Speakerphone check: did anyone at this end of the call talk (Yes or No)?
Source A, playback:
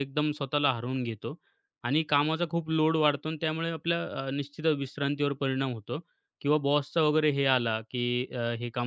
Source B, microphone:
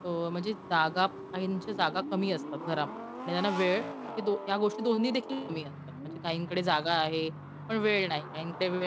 Yes